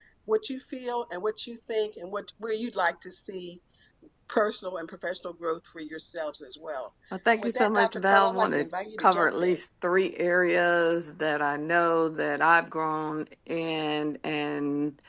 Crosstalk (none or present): present